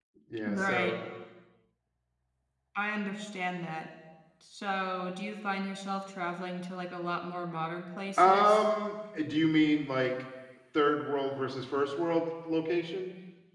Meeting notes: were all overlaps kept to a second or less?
Yes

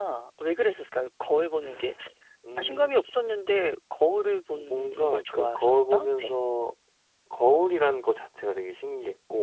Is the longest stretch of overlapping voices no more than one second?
No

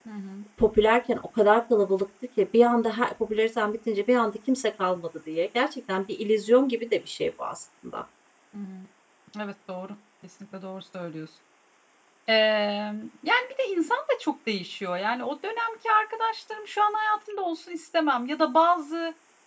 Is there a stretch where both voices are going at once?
No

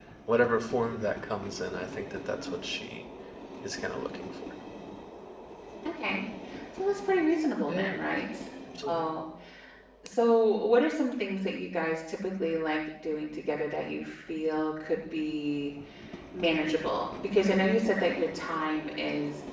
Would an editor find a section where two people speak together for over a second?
No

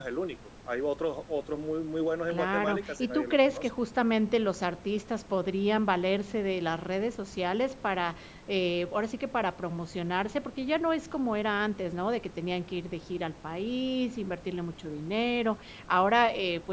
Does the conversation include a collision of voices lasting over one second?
Yes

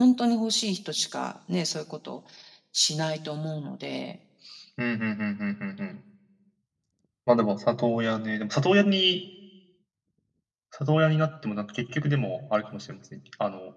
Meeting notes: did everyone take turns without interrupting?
Yes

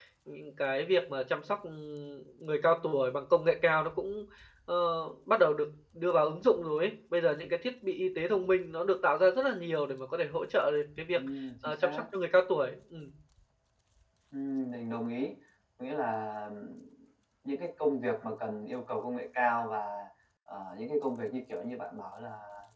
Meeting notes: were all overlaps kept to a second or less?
Yes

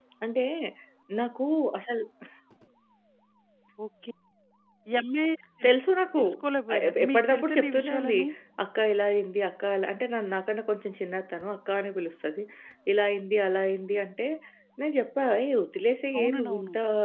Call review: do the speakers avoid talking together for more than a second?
No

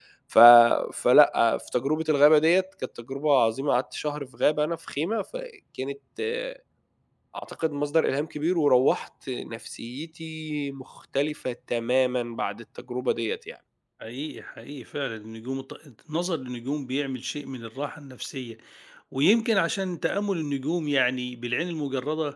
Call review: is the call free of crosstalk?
Yes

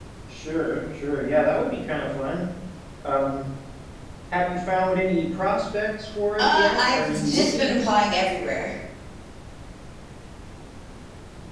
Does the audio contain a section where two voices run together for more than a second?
Yes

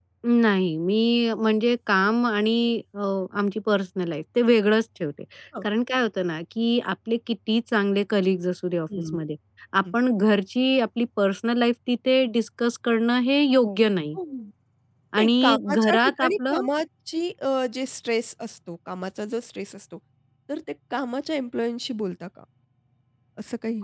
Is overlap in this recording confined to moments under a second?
No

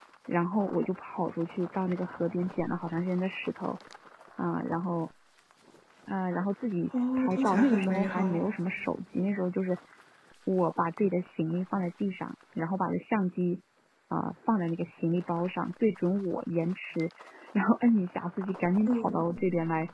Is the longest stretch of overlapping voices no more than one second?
No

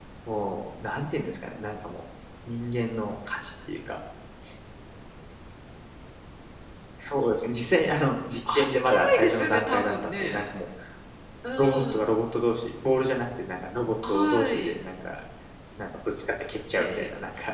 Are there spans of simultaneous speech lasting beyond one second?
Yes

